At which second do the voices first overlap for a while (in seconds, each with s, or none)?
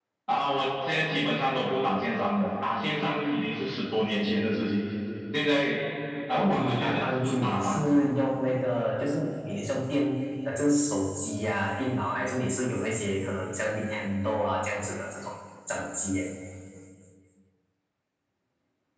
6.3 s